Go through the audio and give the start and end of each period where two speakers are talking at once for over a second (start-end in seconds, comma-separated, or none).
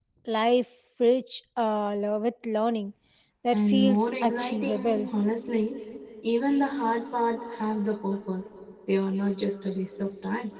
3.5-5.0